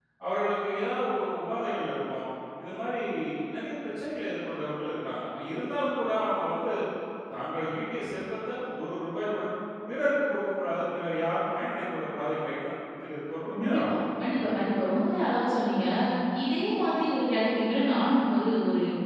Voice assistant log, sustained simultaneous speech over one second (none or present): none